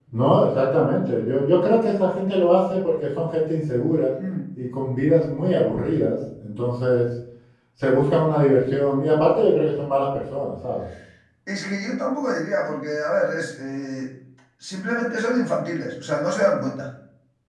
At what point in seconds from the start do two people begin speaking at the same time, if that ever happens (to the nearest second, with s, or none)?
none